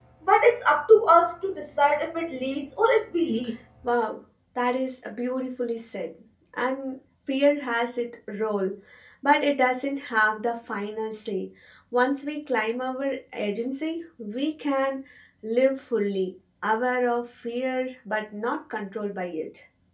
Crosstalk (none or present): none